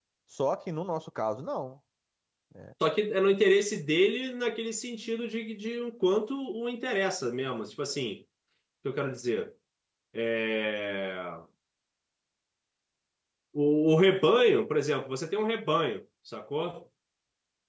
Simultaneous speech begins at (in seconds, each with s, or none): none